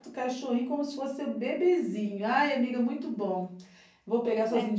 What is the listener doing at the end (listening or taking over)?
listening